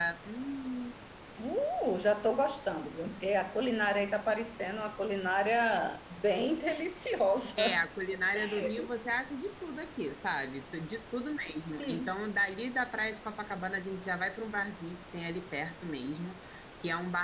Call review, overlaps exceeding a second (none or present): none